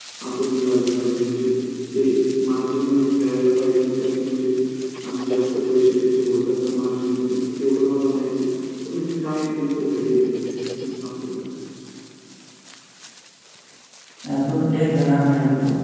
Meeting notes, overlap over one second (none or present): none